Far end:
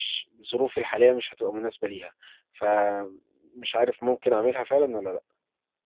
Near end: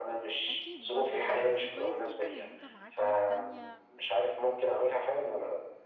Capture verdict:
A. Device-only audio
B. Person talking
B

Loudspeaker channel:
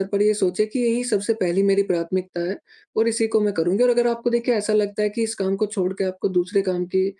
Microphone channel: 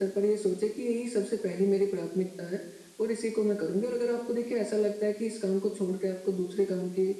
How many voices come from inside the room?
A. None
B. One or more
A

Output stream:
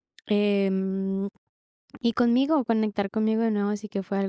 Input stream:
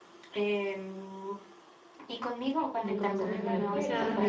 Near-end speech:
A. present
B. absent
A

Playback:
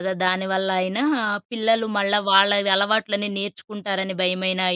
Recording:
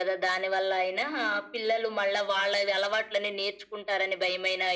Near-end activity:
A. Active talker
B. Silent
B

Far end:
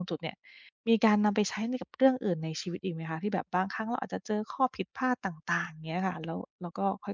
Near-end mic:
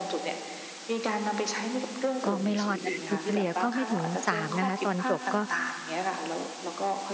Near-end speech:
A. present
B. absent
A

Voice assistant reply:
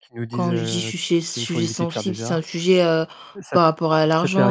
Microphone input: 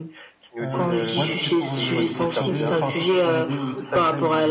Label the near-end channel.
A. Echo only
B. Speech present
B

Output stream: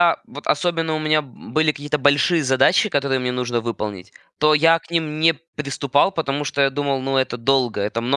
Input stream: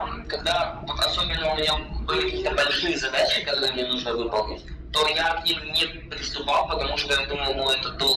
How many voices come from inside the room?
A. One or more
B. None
B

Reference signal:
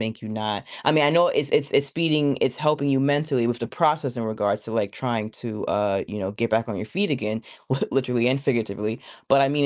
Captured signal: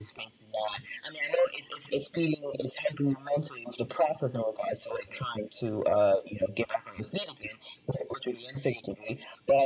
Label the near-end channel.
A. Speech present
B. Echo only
B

